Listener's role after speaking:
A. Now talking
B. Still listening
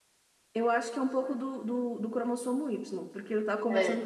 B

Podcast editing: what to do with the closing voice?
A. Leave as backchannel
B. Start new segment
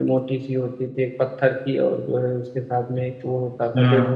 A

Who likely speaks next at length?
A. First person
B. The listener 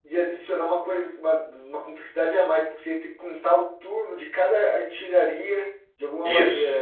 B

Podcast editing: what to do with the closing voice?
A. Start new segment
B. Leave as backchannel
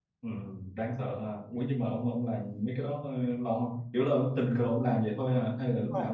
A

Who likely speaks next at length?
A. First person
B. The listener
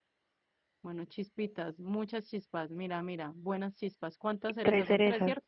B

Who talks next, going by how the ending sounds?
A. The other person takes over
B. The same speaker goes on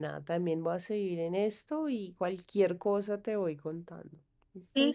A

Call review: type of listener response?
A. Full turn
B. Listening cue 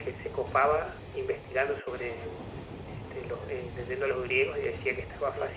B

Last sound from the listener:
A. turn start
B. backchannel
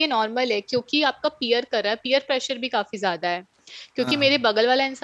B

